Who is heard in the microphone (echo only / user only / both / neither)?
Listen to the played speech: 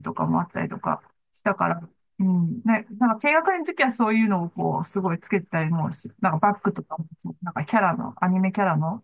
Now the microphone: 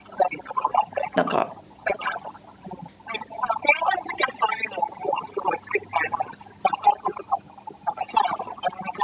both